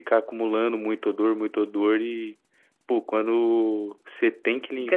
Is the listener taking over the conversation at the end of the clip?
Yes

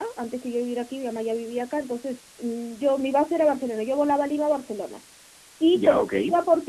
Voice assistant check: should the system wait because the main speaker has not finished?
Yes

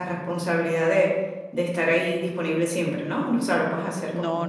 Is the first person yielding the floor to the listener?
Yes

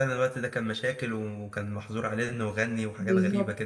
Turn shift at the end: Yes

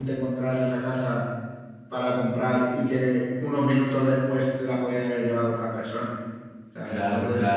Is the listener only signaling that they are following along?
No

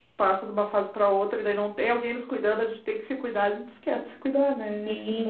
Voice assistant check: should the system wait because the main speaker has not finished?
No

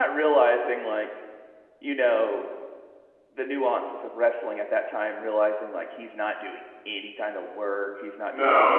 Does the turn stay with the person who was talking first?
No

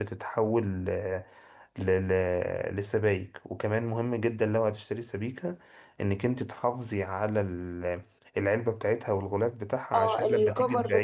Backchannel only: No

